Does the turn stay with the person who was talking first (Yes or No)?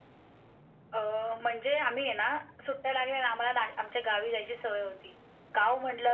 Yes